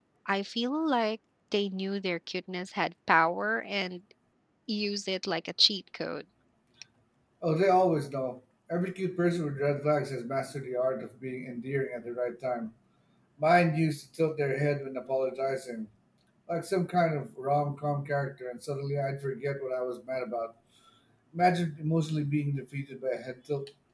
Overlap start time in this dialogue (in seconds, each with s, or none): none